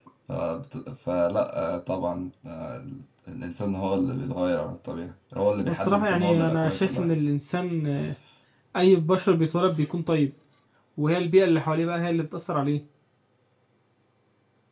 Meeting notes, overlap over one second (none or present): present